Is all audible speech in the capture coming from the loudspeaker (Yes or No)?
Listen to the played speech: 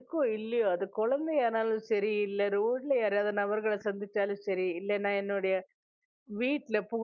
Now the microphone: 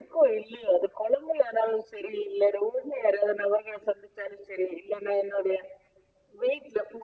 Yes